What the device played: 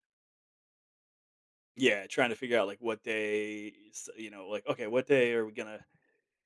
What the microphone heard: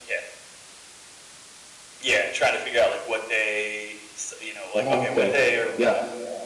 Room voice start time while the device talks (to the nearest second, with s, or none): 5 s